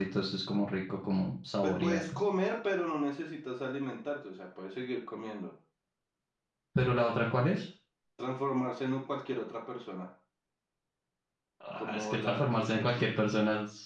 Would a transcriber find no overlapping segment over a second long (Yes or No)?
No